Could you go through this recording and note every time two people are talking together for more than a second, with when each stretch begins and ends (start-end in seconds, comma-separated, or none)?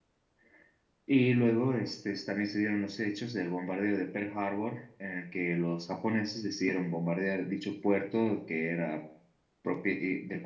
none